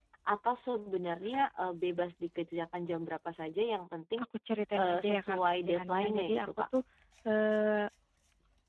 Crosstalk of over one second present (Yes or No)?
Yes